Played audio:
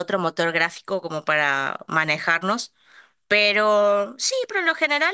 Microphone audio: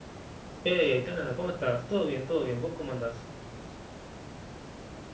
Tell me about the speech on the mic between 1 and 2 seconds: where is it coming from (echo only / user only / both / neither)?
user only